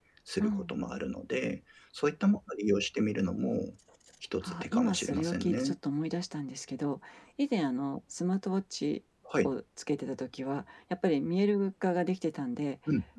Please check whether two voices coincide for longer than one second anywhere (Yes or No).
Yes